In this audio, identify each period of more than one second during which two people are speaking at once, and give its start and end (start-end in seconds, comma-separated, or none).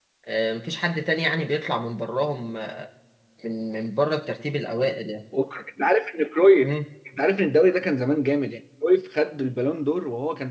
none